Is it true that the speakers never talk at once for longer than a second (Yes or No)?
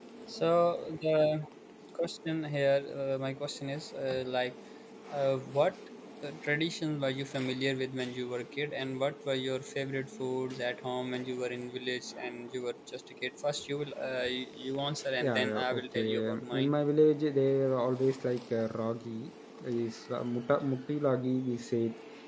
No